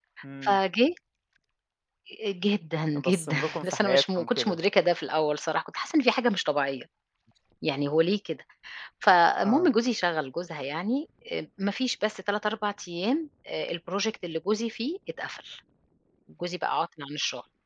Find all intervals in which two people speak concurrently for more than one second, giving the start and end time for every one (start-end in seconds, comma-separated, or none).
2.9-4.6